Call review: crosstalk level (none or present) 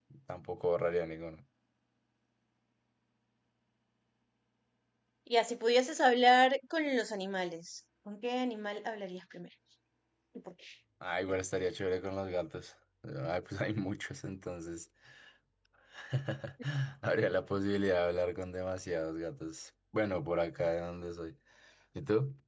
none